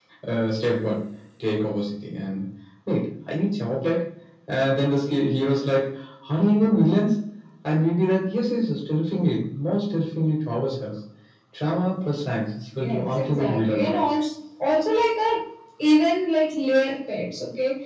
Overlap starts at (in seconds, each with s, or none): 12.8 s